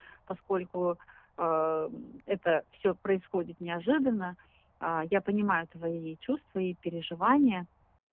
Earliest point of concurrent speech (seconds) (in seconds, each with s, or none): none